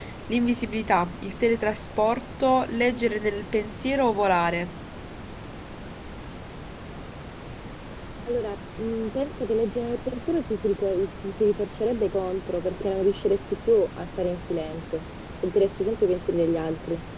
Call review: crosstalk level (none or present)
none